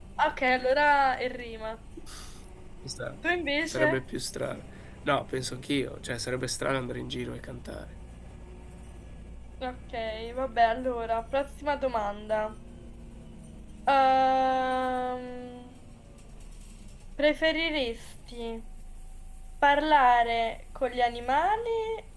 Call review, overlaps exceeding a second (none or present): none